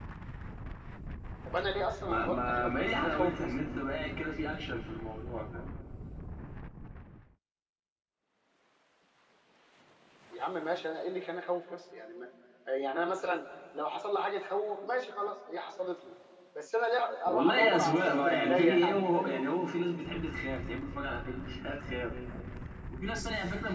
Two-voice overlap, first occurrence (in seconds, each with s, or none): 2.1 s